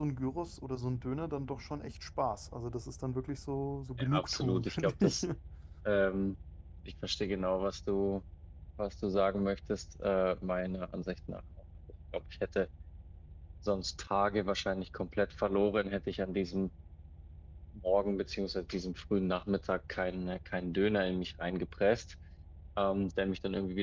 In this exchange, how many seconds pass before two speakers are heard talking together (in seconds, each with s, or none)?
4.0 s